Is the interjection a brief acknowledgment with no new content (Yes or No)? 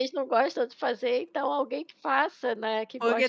No